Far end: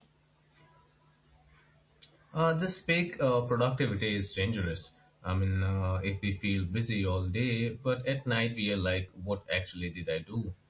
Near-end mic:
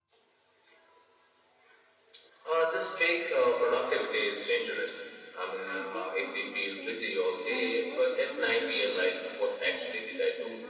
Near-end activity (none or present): present